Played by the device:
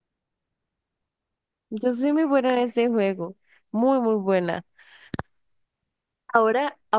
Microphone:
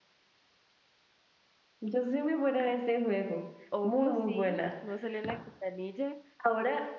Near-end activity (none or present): present